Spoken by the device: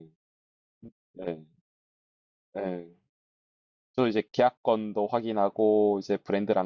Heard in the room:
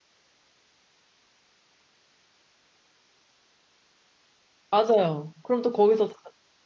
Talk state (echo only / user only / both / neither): user only